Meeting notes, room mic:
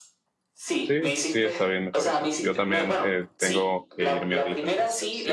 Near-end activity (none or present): present